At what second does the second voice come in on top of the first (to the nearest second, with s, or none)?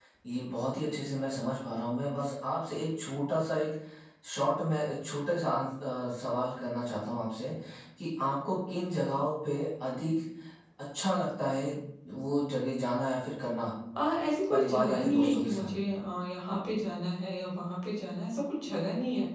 15 s